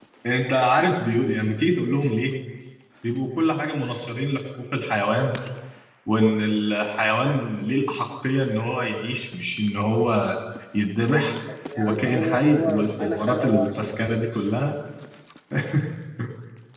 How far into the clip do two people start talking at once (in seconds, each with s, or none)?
11.8 s